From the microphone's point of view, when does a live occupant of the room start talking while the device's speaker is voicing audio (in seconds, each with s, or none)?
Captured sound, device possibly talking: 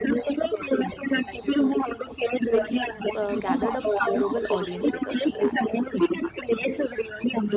2.5 s